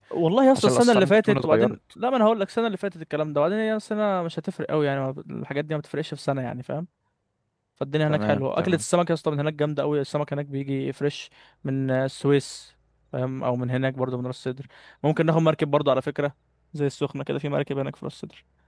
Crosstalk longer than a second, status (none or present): present